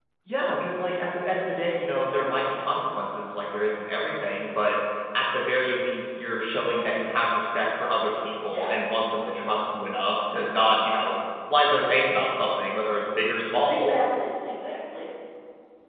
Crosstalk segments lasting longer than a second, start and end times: none

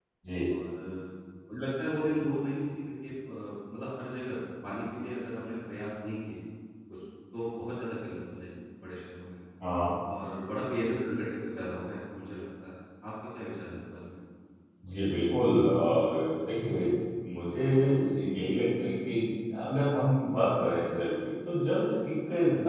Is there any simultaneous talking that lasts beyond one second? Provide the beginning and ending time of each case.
none

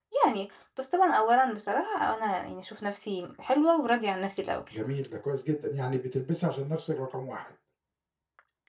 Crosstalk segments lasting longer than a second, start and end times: none

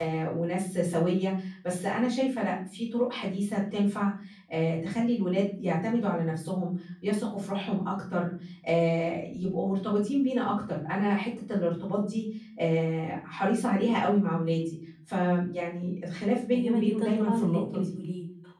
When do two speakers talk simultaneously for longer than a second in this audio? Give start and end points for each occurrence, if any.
16.5-17.9

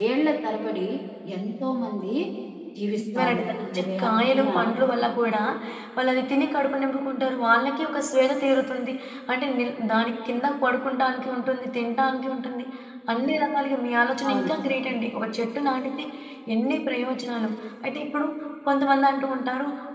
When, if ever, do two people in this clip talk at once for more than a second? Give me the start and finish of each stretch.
3.1-4.5

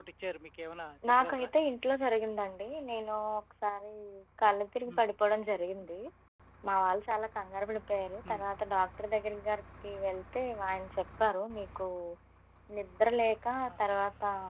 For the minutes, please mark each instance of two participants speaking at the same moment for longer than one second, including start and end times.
none

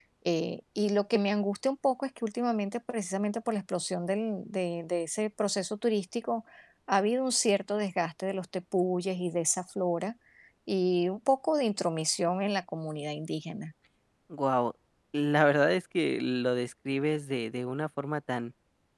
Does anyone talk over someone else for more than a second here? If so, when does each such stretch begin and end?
none

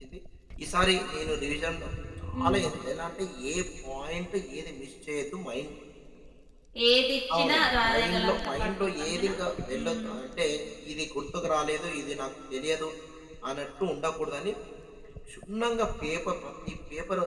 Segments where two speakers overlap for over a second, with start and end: 7.4-9.3

